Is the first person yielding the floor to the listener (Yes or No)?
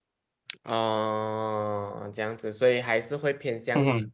No